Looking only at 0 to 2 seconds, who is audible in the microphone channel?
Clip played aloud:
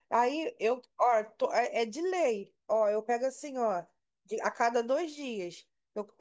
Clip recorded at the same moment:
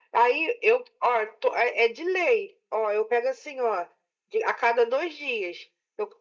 echo only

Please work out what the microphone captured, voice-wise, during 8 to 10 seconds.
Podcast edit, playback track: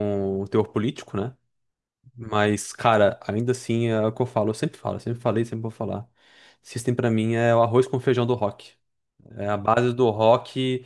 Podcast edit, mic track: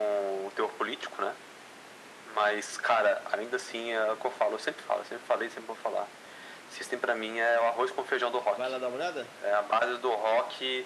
both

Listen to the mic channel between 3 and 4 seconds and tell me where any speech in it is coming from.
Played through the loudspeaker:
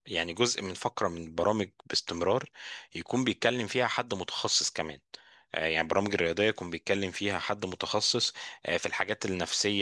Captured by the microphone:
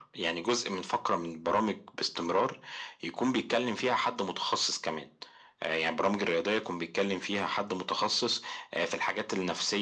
echo only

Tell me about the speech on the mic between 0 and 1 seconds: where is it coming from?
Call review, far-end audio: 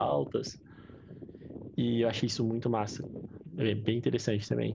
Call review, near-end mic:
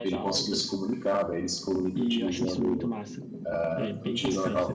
both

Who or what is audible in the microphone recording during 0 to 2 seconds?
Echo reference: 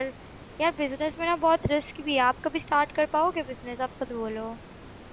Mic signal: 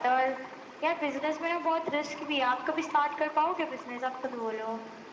echo only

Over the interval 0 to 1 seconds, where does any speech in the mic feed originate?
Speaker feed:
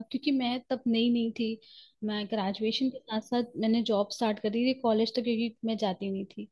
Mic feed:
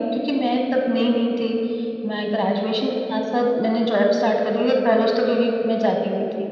echo only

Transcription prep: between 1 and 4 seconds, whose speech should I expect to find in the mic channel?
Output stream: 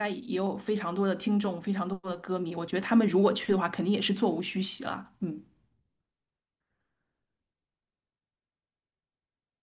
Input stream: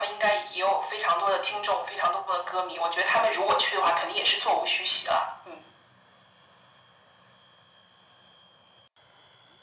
echo only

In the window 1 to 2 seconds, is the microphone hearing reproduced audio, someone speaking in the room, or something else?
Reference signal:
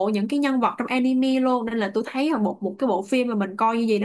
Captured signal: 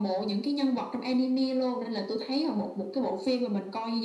echo only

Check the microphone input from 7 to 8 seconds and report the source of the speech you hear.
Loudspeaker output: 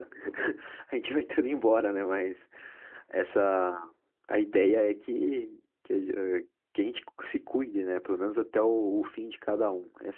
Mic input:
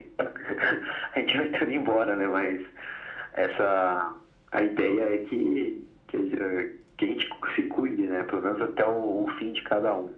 echo only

